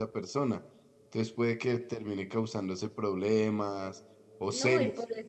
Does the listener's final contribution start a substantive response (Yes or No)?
Yes